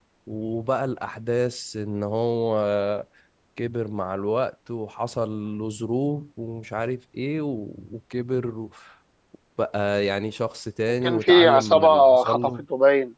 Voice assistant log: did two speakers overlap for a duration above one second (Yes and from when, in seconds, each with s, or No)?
Yes, from 11.0 s